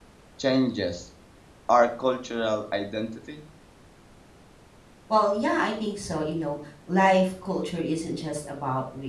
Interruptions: none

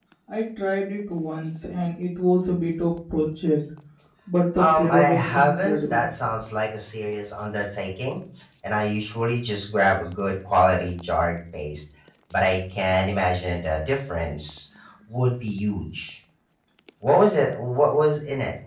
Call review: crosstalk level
present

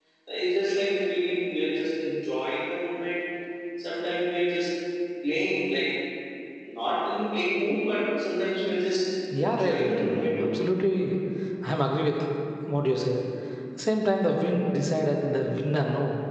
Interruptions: present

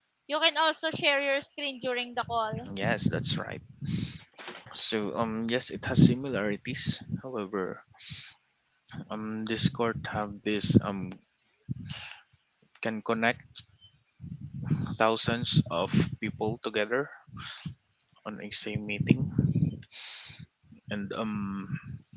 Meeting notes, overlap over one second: none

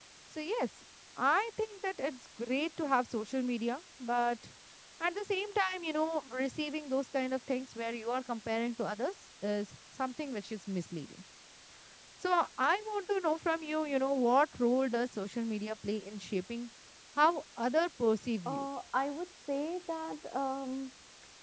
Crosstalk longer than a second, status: none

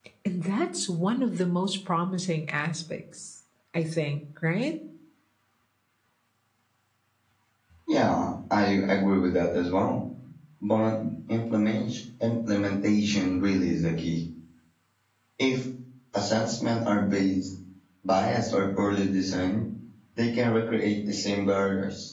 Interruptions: none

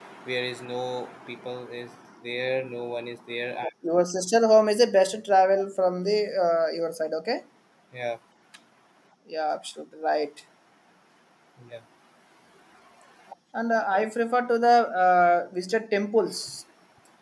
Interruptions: none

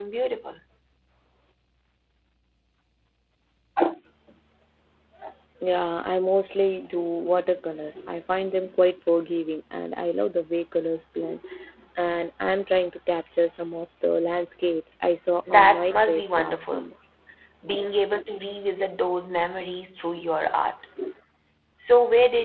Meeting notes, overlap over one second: present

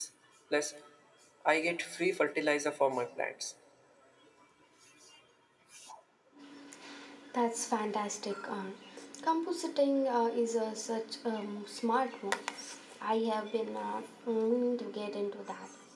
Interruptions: none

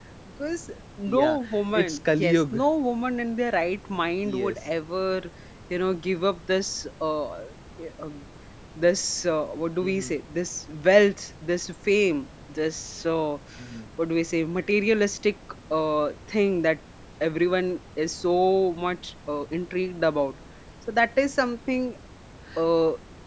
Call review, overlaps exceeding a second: present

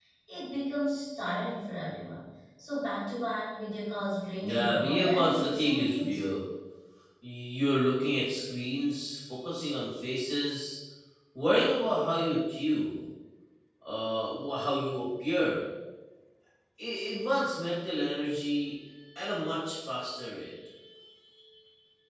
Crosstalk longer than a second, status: present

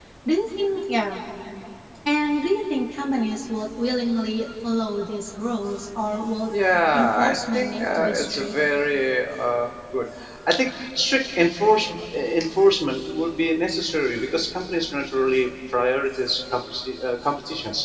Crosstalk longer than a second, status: present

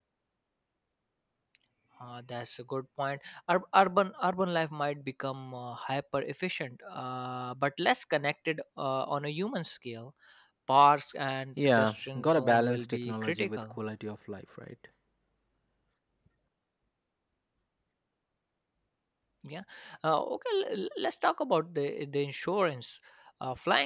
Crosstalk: present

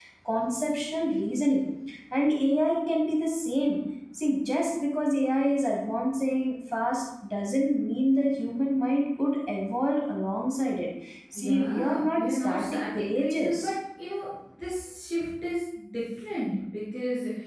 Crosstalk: present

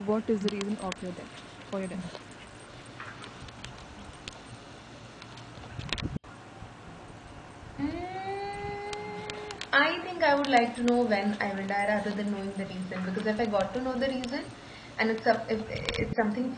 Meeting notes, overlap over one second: none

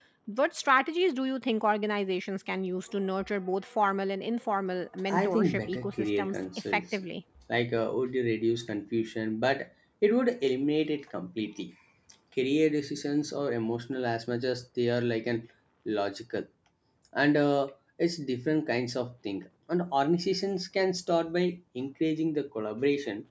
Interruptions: present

